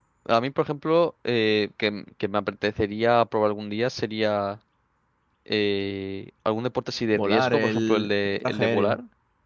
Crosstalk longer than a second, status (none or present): present